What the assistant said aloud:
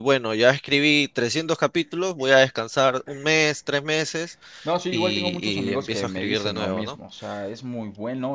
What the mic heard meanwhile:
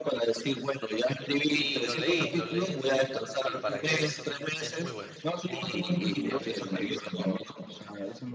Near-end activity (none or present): present